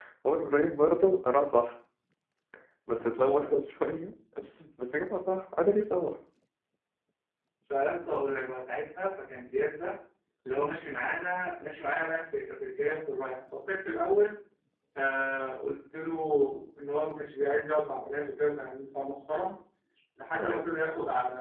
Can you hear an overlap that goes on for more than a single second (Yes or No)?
No